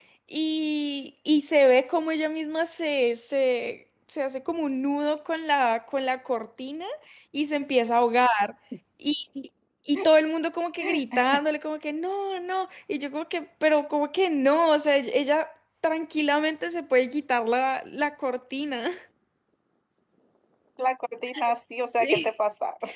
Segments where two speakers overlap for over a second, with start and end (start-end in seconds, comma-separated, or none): none